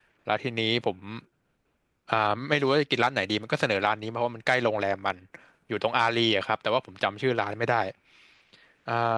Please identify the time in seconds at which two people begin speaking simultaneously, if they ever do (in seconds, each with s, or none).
none